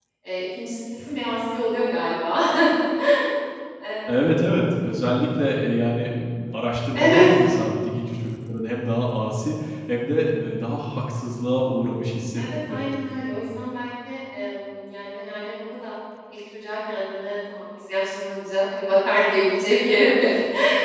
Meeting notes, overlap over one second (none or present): none